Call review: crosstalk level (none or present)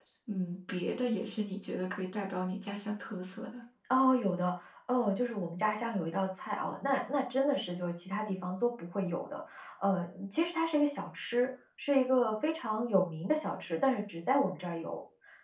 none